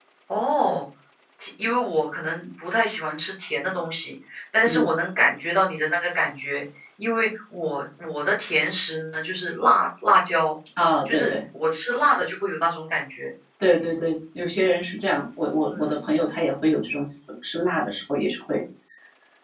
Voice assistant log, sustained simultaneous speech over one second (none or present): none